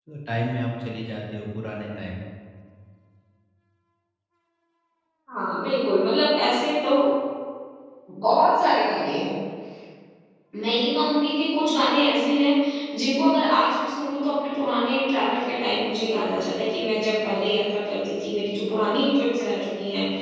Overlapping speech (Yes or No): No